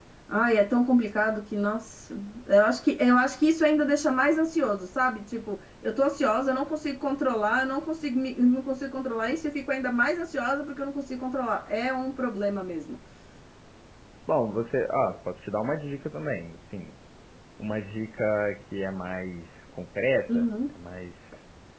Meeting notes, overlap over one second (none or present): none